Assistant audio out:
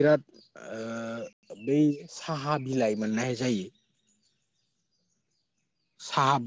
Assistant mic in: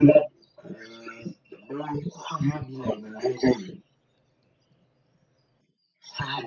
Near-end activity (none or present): none